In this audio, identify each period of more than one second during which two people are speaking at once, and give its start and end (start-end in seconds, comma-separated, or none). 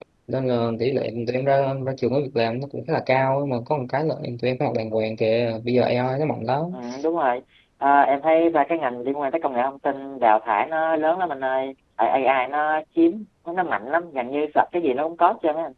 none